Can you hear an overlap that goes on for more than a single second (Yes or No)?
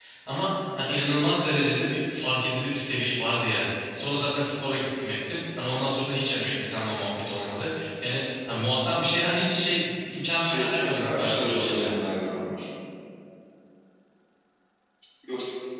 Yes